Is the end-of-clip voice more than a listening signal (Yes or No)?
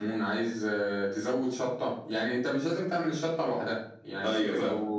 No